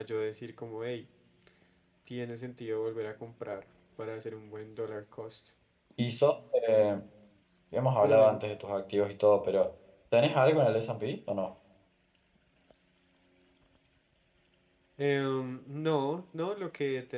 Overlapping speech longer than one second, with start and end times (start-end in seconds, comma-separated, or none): none